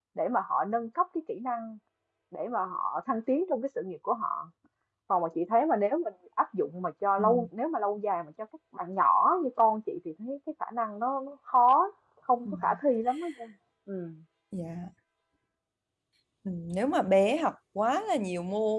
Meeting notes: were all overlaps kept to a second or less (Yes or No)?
Yes